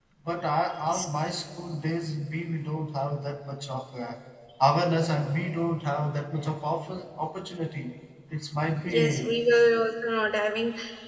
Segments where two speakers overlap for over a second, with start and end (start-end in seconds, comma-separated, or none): none